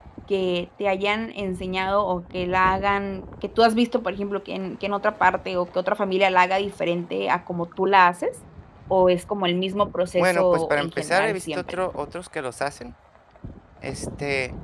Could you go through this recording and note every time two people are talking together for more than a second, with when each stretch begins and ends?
10.2-11.8

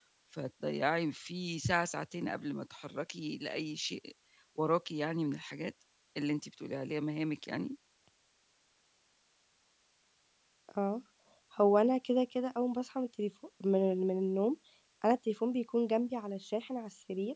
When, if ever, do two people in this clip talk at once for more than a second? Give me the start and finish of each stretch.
none

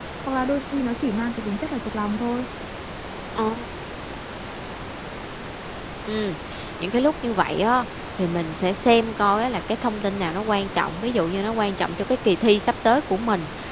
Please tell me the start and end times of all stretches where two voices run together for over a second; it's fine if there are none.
none

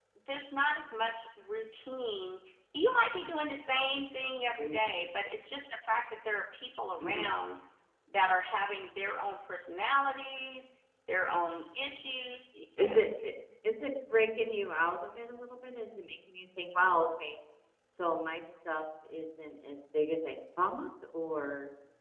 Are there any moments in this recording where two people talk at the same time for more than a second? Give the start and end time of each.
none

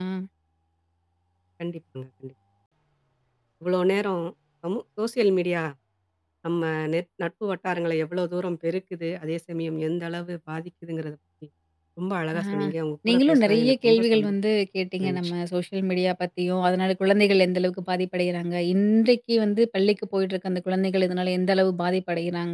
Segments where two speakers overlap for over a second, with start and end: 13.1-14.3

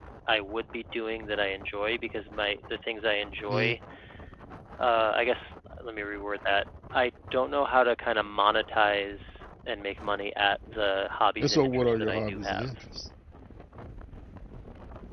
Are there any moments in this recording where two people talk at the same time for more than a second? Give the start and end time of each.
11.4-12.7

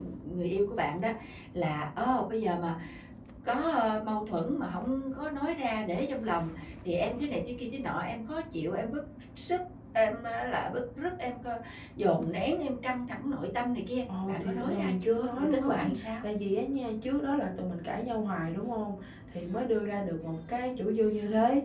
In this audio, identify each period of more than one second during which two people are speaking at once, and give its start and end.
14.3-16.2

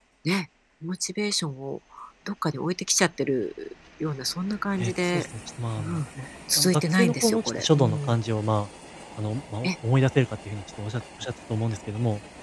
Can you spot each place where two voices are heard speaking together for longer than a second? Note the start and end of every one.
6.6-8.2

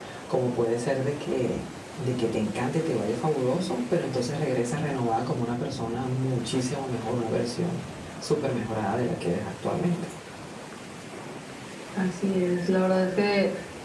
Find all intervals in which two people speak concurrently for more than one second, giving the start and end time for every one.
none

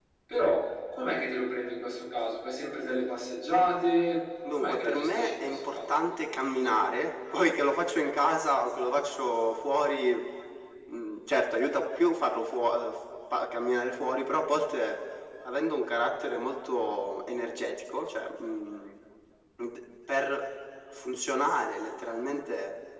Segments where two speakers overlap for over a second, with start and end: 4.6-5.9

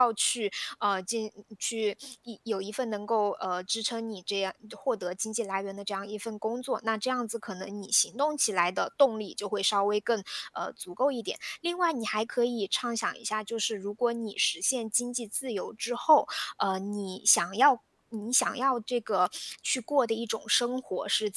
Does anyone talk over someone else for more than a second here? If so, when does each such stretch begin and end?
none

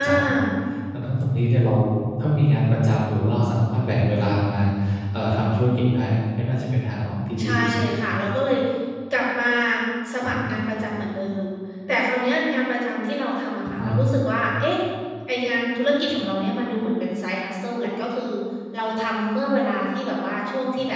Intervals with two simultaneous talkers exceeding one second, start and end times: none

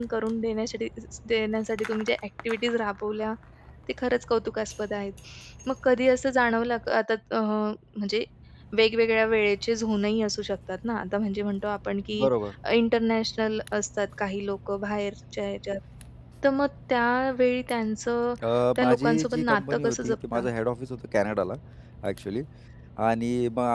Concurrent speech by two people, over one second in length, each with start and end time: 18.8-20.4

